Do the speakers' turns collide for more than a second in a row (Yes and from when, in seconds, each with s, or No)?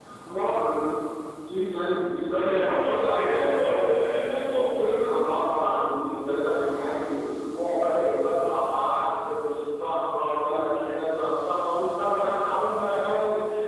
Yes, from 2.4 s